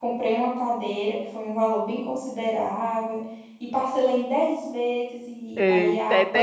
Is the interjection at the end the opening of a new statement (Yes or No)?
Yes